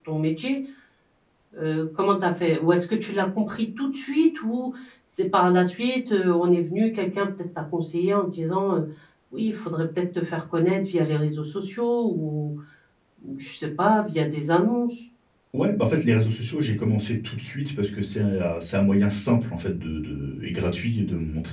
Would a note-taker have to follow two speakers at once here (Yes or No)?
No